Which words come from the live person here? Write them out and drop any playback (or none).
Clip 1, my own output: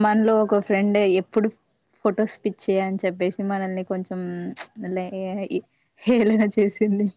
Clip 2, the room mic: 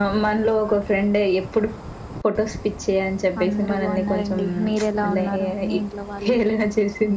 అందరు బాగున్నారంండి మీరెలా ఉన్నారు మీ ఇంట్లో వాళ్ళు